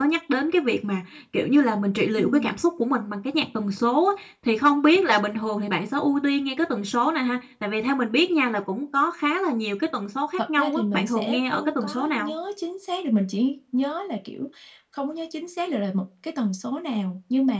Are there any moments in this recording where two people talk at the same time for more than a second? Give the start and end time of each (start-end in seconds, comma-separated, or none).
10.4-12.3